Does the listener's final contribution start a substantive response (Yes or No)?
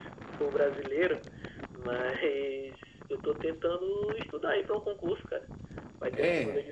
No